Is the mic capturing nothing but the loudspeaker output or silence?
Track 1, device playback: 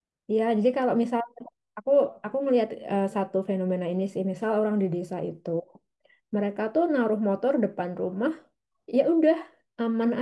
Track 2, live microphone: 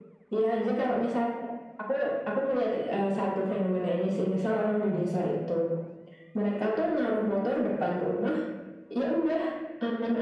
Yes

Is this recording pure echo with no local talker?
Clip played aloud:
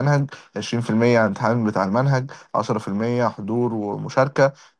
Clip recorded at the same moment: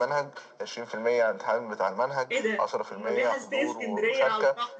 No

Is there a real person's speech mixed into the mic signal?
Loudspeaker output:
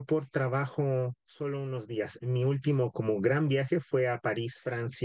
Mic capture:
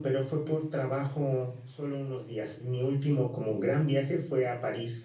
No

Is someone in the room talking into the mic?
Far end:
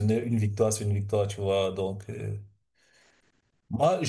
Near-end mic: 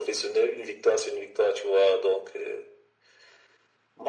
No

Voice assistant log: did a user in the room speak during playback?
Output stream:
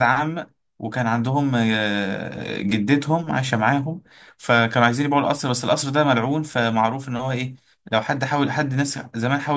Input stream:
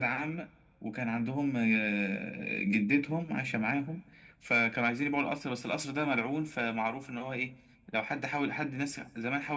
No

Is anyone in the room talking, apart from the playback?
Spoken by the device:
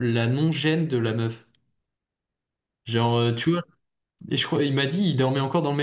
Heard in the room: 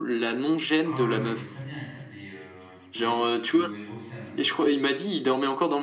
Yes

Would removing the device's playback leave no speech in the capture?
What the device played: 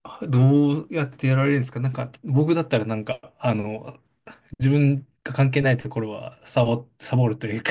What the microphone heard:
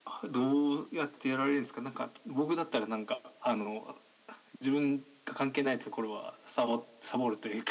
Yes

